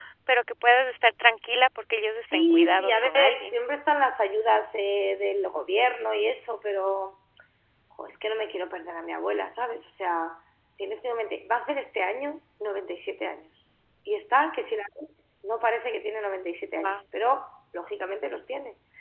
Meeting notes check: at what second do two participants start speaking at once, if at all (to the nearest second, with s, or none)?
2 s